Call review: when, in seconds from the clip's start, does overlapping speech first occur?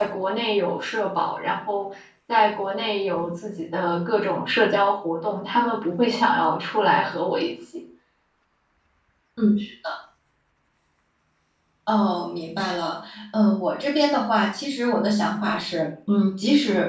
none

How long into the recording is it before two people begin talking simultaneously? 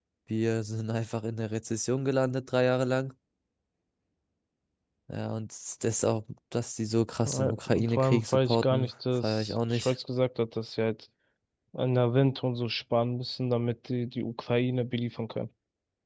7.2 s

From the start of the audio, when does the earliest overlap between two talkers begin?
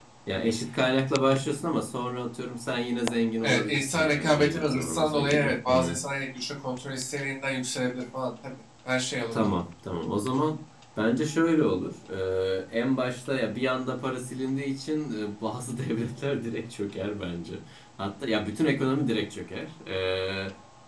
3.4 s

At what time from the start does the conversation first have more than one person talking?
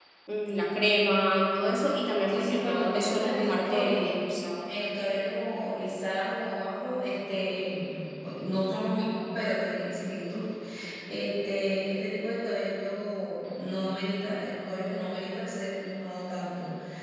2.3 s

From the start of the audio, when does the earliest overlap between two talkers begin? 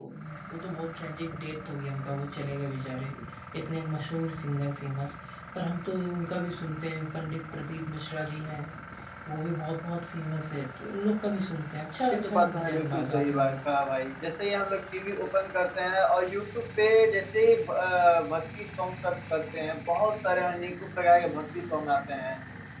12.1 s

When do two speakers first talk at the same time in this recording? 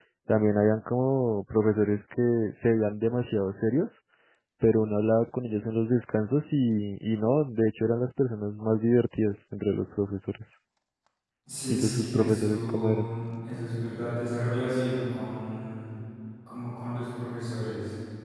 11.7 s

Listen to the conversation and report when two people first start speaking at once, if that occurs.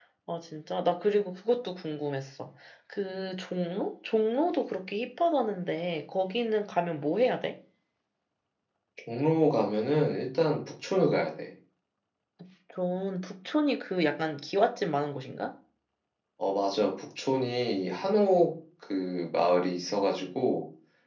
none

